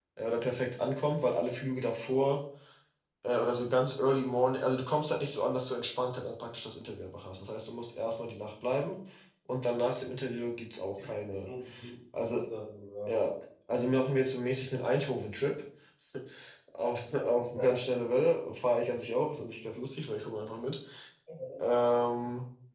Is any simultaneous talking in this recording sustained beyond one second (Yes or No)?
No